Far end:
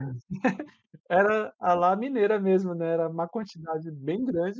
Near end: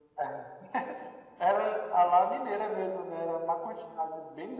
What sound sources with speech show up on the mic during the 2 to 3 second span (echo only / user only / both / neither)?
echo only